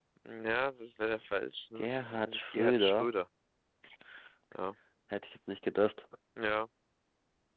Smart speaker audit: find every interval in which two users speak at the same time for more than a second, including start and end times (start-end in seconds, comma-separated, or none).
1.8-3.1